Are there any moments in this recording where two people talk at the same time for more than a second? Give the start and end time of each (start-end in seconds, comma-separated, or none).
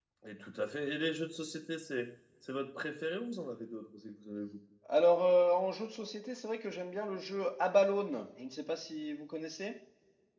none